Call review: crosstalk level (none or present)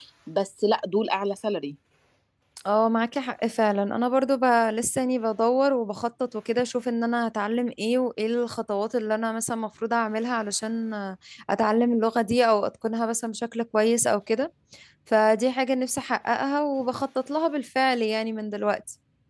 none